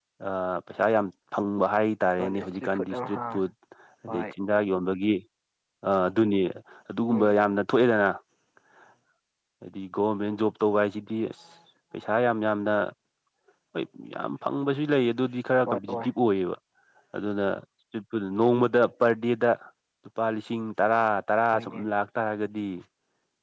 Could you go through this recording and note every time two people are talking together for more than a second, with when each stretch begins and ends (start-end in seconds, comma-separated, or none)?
2.2-3.4